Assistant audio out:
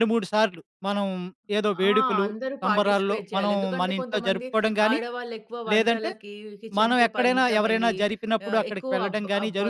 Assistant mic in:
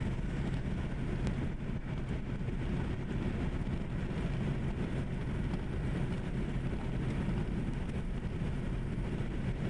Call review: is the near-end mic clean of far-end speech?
Yes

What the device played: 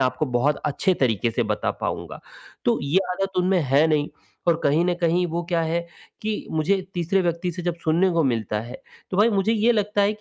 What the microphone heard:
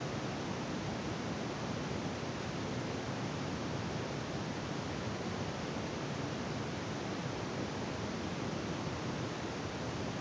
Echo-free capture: Yes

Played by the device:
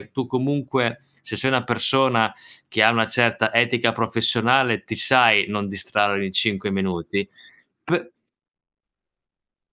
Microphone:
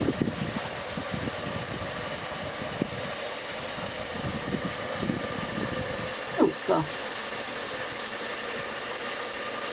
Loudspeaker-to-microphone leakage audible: No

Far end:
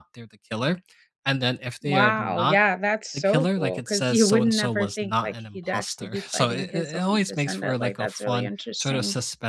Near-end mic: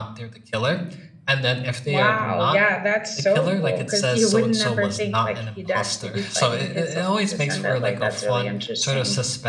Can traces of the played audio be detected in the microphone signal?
Yes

